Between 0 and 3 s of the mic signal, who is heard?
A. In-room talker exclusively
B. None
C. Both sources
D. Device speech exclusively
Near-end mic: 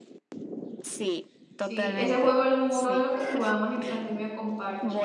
C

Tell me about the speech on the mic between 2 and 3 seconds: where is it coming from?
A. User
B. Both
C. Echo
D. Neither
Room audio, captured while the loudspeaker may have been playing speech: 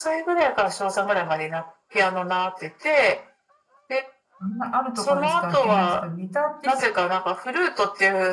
C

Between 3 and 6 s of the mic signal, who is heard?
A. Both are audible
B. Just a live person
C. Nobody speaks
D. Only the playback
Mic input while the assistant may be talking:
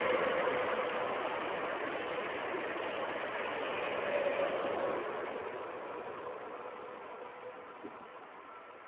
C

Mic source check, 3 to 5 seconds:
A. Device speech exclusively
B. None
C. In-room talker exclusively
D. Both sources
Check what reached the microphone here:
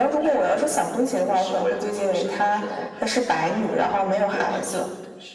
A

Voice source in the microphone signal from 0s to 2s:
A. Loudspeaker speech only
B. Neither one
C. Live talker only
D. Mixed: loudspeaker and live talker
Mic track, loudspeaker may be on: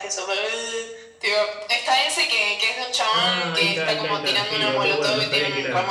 A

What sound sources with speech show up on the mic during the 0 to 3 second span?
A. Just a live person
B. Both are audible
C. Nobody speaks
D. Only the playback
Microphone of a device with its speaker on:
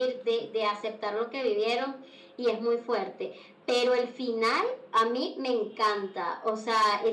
D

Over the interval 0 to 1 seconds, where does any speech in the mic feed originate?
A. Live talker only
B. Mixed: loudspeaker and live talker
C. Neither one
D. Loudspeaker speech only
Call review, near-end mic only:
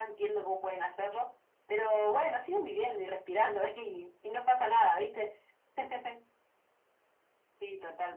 D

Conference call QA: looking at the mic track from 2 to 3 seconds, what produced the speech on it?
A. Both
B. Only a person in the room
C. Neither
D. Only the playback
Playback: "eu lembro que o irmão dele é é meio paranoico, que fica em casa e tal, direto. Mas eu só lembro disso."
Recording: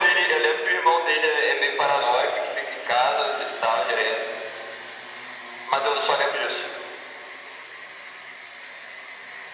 D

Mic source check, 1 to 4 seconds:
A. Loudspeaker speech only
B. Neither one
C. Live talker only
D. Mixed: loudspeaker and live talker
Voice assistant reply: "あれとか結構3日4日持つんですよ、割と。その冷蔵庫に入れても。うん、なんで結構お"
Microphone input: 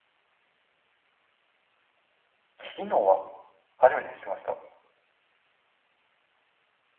C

